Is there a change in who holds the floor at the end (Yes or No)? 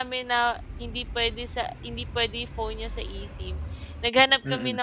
No